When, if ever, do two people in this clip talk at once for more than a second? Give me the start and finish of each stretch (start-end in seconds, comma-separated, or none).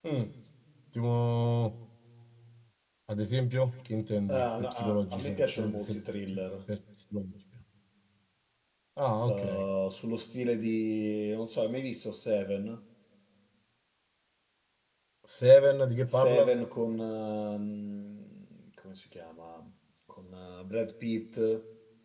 4.3-6.0